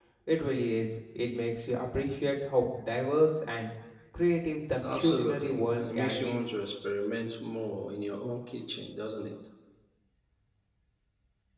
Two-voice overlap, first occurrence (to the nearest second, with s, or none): 5 s